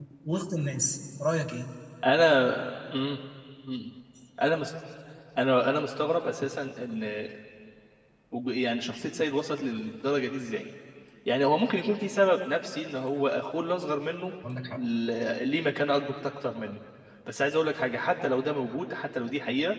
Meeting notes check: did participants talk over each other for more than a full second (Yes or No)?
No